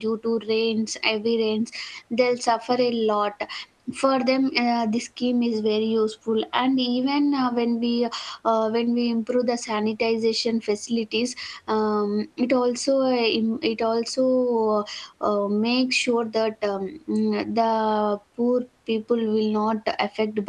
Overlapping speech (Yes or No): No